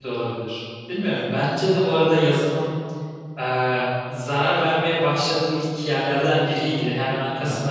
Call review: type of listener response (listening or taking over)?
listening